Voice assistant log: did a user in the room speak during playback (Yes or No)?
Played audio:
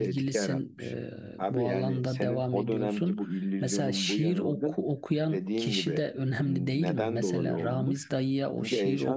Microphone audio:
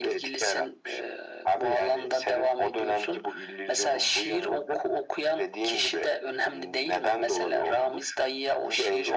No